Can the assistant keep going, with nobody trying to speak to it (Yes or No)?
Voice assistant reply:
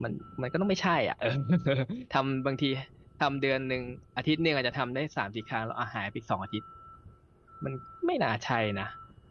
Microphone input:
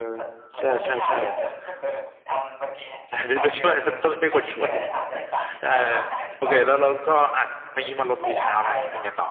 No